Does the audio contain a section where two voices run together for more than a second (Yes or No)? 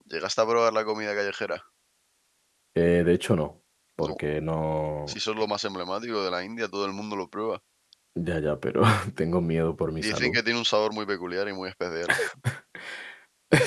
No